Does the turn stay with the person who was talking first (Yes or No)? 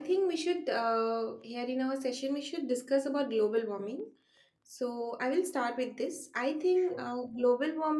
Yes